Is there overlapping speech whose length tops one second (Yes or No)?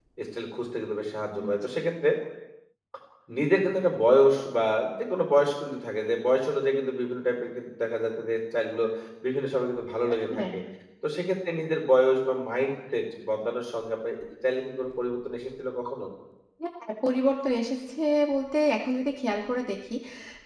No